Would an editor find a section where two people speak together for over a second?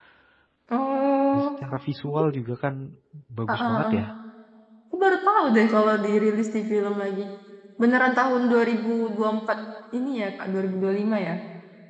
No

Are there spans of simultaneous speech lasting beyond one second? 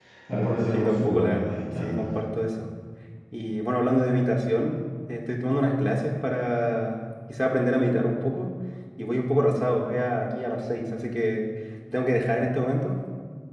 Yes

